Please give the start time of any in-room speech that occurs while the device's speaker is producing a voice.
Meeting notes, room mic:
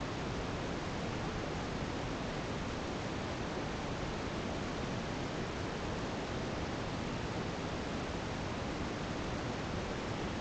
none

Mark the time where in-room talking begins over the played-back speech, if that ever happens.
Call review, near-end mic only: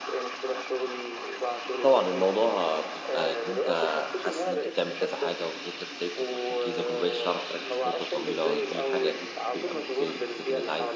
1.8 s

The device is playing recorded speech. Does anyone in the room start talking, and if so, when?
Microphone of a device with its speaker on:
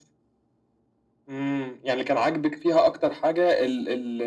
none

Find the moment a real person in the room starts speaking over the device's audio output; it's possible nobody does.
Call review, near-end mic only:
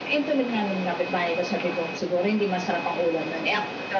none

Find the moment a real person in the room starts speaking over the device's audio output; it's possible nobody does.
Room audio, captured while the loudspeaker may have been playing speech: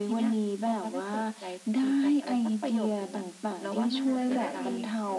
4.0 s

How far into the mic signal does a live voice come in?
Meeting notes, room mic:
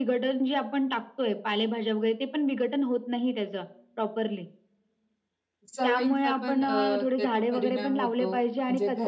5.8 s

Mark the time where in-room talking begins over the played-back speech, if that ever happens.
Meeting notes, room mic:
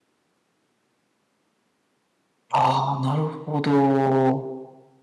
2.5 s

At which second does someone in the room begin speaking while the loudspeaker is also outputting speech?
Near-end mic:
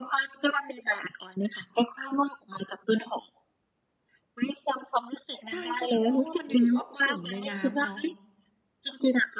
5.5 s

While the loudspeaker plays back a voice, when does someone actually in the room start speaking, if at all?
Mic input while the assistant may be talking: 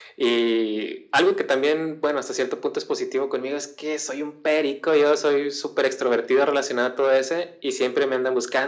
none

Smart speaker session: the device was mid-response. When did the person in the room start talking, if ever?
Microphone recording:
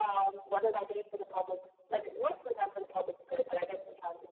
none

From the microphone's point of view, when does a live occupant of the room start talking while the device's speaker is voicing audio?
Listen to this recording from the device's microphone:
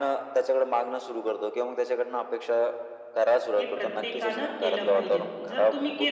3.6 s

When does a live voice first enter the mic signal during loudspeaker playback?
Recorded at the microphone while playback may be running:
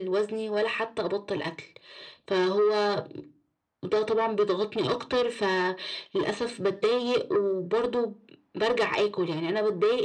none

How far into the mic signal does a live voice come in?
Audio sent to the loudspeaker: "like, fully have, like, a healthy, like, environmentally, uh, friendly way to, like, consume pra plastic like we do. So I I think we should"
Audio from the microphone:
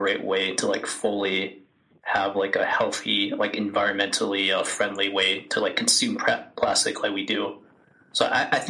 none

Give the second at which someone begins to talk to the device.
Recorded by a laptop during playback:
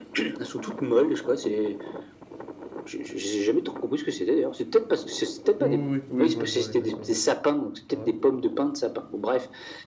5.6 s

